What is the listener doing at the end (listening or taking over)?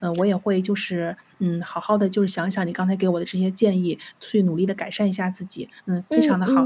taking over